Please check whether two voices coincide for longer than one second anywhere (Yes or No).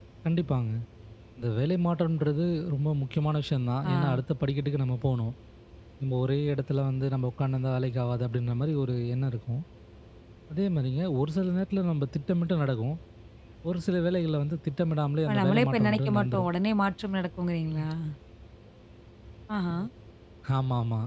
Yes